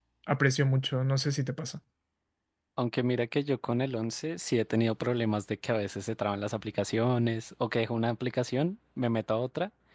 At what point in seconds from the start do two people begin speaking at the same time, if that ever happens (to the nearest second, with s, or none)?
none